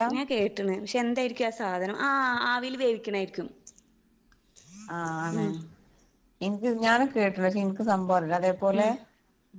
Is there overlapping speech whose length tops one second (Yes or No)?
No